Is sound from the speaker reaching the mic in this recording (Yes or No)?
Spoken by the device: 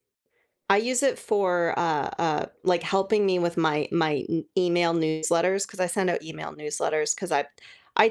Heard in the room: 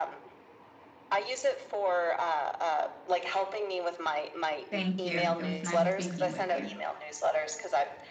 Yes